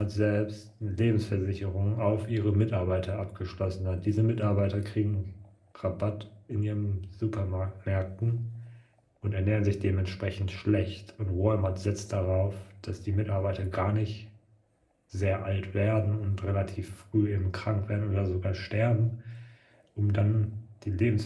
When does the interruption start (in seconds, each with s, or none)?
none